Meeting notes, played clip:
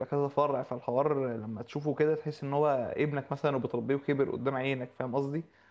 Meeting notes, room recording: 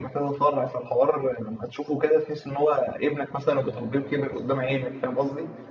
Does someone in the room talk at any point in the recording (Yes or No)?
Yes